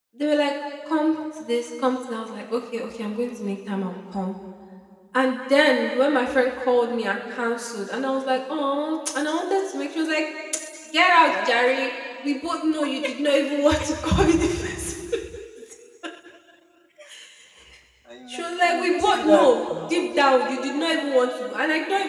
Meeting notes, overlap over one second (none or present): present